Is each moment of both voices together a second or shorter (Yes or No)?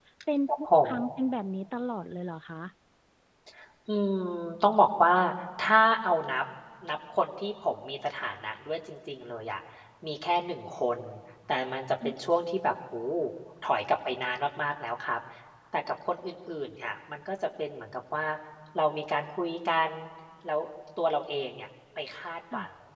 Yes